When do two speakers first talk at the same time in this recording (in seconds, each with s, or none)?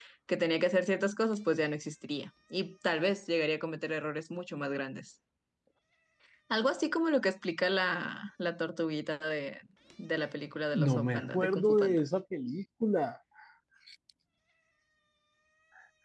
10.7 s